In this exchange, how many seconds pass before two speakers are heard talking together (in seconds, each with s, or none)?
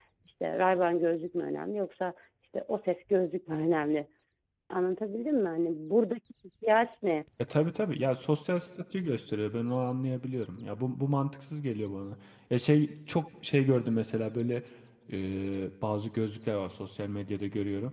none